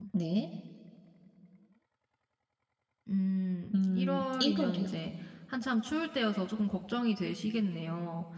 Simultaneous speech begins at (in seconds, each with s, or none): 3.7 s